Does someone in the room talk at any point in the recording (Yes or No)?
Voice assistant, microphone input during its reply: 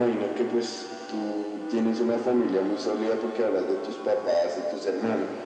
No